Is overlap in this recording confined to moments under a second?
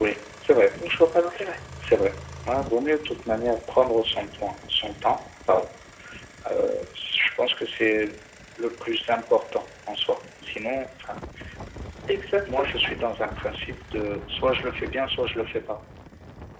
Yes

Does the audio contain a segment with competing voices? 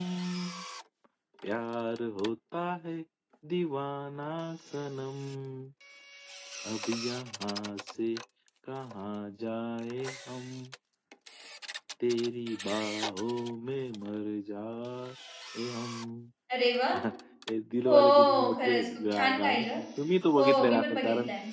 Yes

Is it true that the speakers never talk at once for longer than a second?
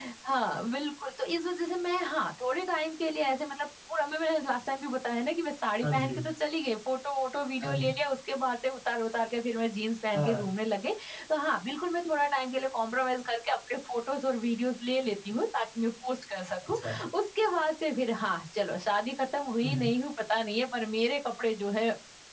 Yes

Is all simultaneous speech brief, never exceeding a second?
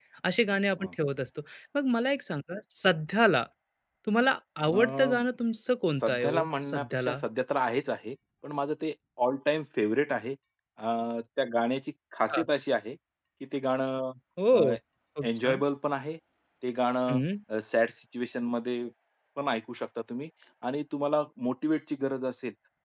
No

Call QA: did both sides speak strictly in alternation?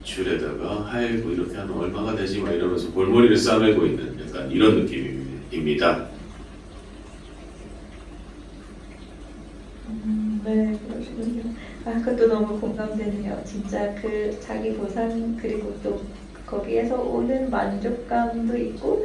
Yes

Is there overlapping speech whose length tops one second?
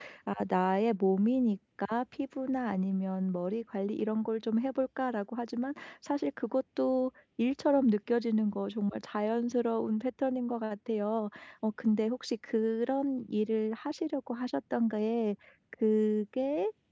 No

